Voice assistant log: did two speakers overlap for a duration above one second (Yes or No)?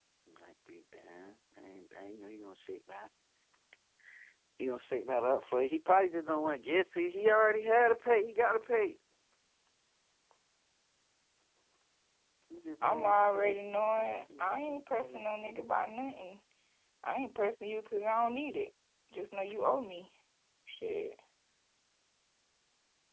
Yes